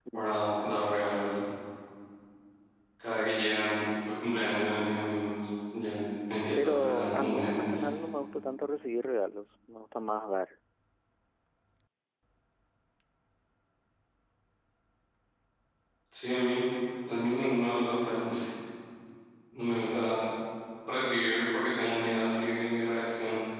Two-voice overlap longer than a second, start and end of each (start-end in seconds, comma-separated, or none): 6.6-7.9